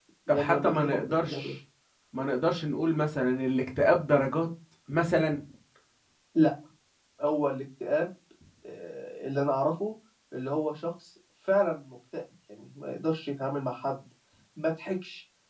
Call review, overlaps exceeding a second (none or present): present